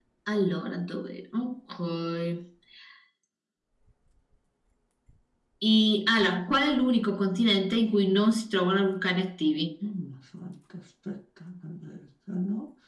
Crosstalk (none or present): none